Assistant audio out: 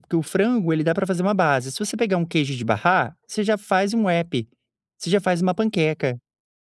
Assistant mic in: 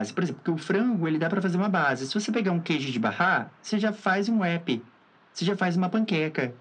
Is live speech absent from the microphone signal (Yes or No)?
Yes